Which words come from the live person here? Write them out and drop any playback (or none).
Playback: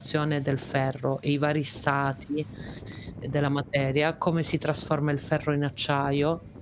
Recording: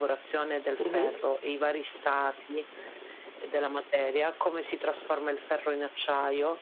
Mh-mh.